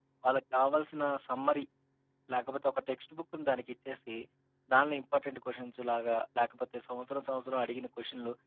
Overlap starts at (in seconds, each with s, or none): none